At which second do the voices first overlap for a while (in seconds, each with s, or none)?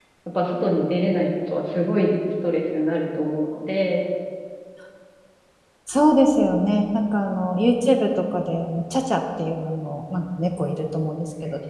none